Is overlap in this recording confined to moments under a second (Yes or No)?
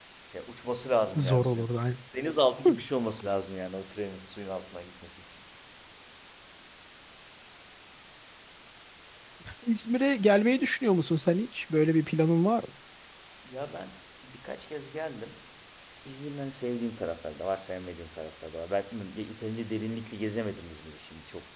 Yes